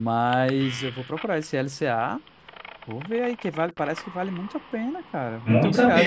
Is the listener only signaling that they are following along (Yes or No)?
No